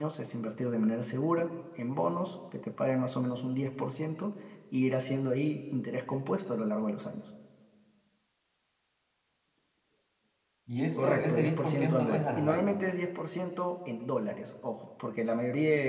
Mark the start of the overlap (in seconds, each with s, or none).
11.0 s